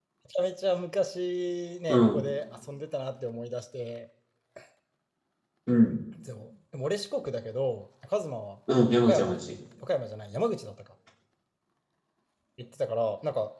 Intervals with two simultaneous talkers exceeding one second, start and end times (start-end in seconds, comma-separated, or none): none